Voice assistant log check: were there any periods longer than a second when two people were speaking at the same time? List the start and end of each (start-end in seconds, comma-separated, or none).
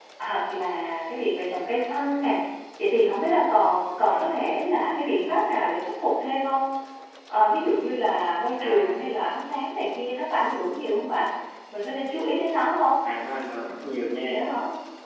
none